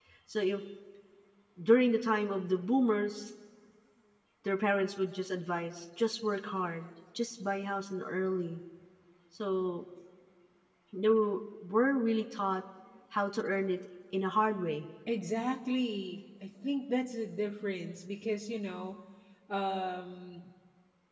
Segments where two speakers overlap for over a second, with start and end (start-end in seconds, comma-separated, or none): none